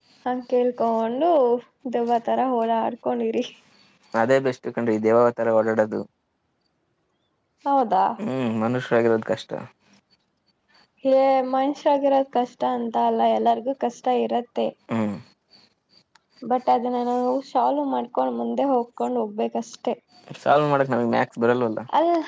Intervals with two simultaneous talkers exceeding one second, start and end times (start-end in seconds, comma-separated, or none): none